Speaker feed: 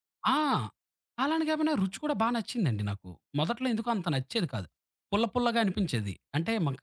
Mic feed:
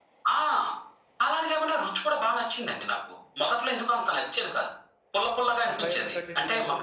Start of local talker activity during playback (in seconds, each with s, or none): 5.7 s